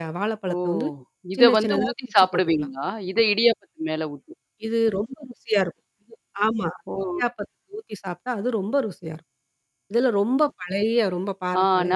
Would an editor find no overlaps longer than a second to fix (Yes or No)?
No